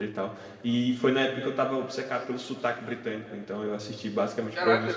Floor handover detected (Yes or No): Yes